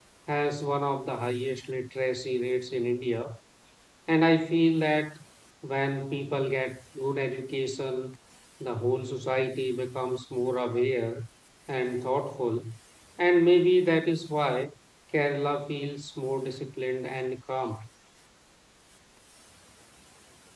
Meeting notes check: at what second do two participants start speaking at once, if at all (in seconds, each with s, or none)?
none